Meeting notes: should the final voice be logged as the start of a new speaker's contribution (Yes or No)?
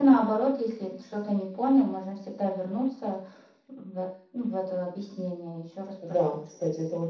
Yes